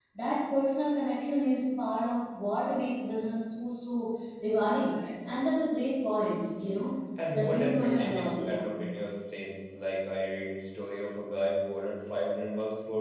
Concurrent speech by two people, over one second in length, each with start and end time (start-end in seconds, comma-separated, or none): 7.3-8.7